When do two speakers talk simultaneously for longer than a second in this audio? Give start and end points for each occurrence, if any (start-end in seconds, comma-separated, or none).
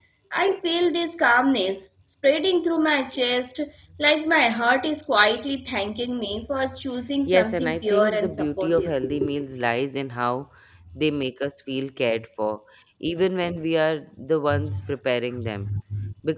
7.3-8.9